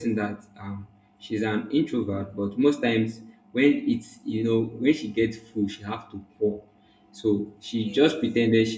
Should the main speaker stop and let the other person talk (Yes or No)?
No